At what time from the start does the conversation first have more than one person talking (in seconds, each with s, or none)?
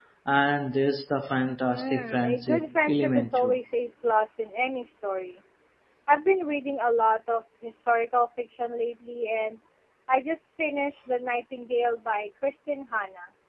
1.7 s